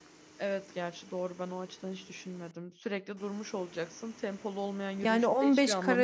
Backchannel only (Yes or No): No